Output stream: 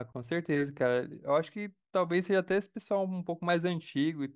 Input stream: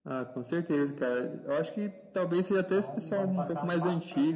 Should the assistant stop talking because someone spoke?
Yes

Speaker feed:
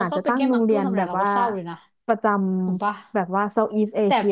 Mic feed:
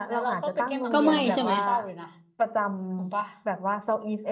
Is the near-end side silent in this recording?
No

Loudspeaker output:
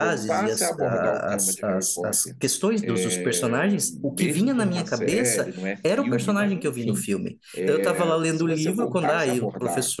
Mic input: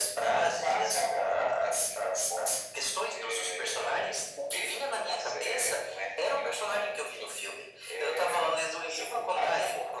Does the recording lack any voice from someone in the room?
Yes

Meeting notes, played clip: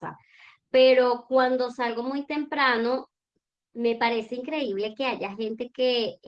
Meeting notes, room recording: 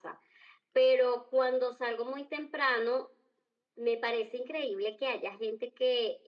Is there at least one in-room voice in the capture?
No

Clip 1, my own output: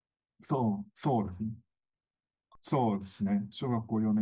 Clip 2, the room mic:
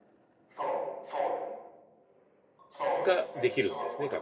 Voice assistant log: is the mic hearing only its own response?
No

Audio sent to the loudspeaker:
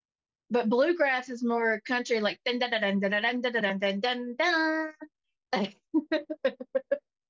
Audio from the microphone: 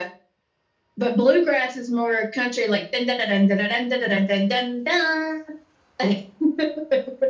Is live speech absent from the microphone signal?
Yes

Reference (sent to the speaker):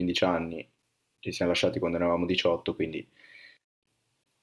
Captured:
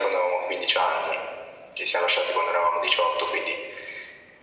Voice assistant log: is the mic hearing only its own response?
Yes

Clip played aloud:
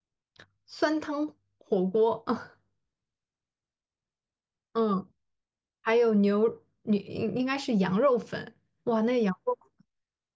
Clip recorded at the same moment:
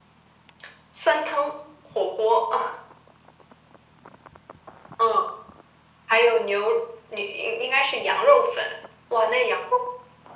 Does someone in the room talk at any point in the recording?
No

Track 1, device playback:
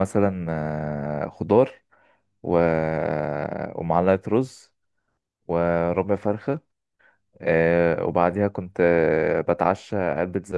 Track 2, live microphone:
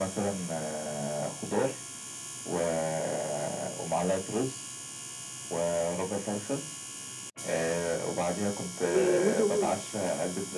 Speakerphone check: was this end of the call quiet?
No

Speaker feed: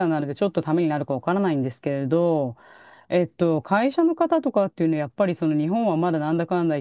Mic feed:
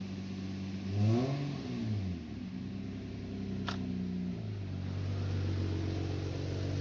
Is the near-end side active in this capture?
No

